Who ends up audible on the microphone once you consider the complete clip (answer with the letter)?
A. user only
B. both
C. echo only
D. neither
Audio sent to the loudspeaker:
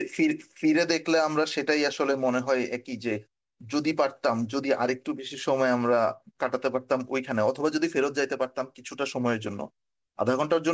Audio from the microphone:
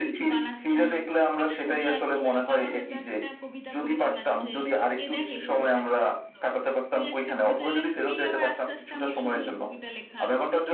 B